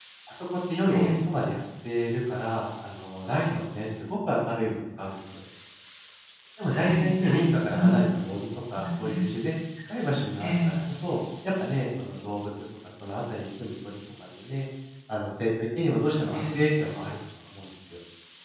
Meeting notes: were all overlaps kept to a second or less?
No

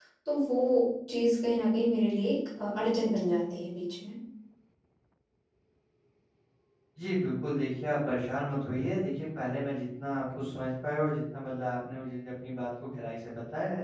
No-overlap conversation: Yes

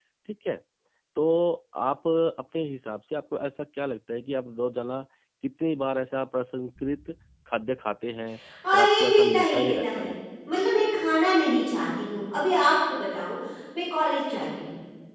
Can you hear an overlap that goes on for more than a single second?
Yes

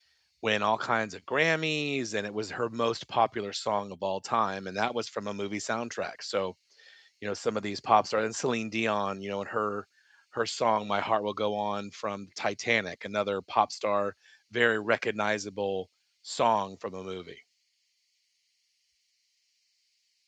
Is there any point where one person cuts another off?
No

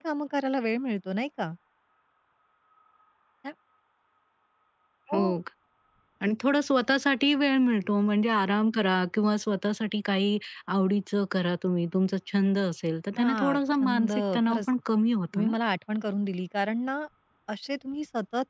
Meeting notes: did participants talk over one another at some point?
Yes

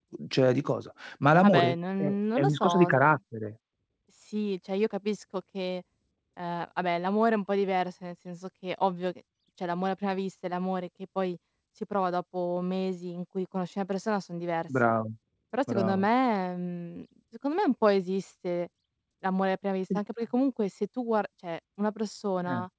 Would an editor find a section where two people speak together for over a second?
Yes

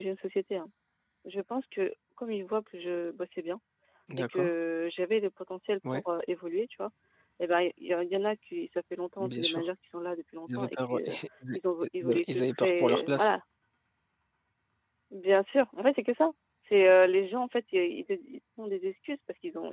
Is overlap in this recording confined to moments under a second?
No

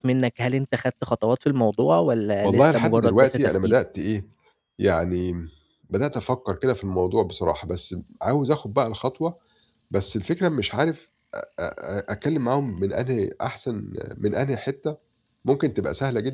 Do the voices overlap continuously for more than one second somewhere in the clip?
Yes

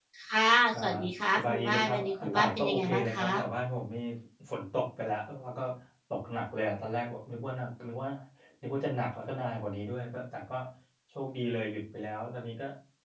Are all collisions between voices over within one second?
No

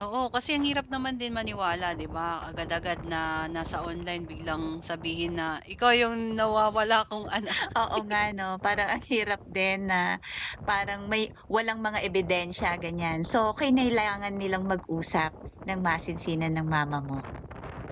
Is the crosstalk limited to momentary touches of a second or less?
Yes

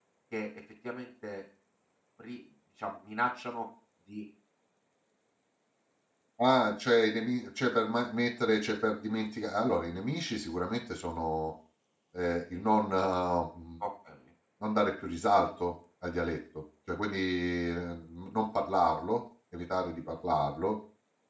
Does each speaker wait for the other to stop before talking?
Yes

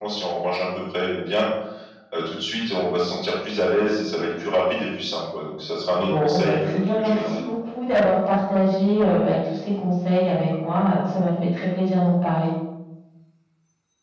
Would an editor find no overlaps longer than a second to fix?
No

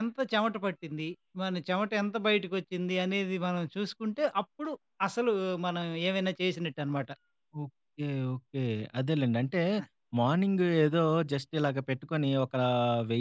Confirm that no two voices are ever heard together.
Yes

